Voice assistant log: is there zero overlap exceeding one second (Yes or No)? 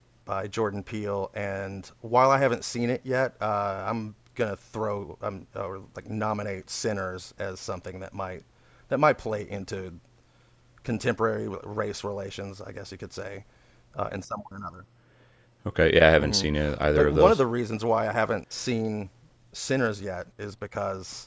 Yes